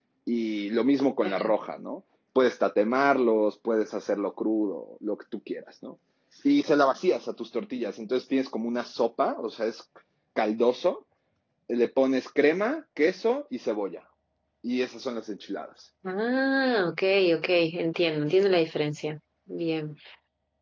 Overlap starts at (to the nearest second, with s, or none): none